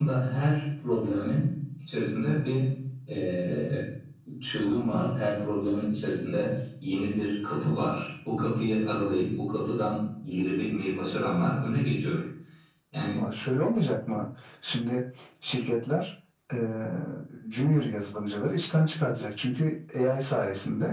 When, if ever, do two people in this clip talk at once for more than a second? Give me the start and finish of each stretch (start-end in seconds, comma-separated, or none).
none